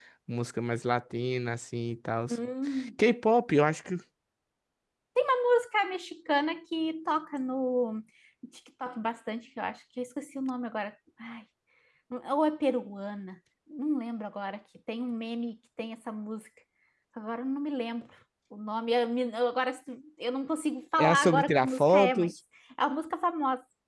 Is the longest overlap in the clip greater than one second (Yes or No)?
Yes